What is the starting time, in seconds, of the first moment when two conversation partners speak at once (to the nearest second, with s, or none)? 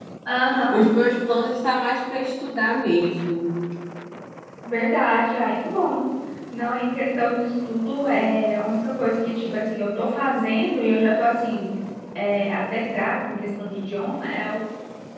none